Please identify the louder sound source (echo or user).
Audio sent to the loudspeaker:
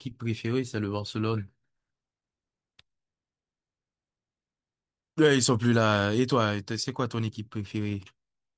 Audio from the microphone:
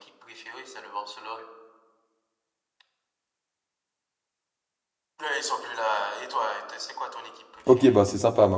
user